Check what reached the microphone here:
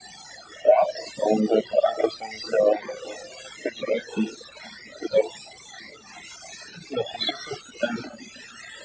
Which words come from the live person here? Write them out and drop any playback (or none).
none